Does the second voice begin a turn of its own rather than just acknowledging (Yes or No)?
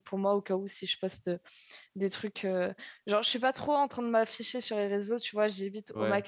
No